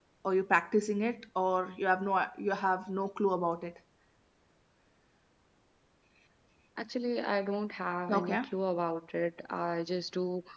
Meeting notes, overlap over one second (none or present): none